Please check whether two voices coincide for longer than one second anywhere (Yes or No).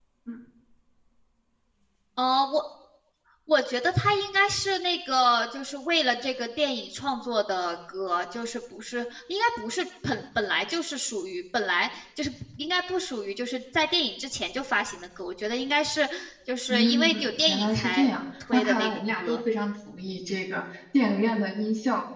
Yes